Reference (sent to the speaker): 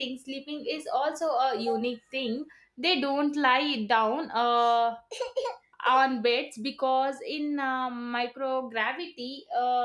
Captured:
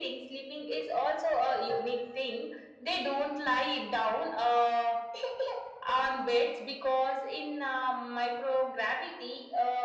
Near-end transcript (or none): none